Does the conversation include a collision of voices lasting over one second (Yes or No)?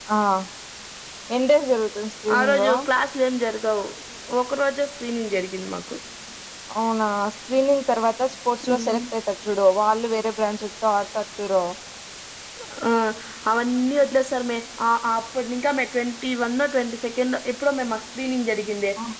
No